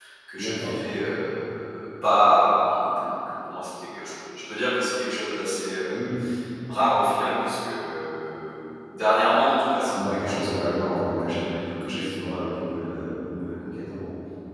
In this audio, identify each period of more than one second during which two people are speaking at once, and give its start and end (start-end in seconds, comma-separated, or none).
9.9-12.2